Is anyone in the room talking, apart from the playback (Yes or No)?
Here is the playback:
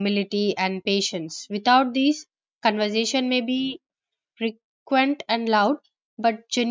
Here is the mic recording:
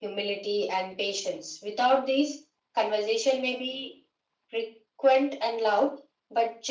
No